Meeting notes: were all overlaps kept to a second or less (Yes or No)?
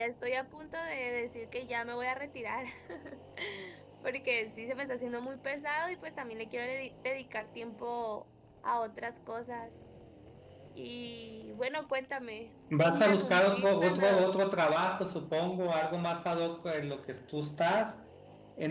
No